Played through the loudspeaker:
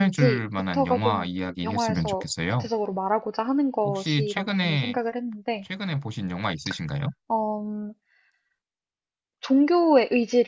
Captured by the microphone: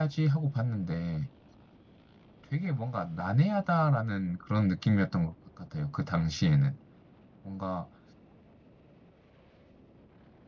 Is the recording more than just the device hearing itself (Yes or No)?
Yes